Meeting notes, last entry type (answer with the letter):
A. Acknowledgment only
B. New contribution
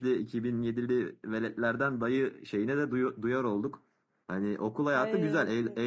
A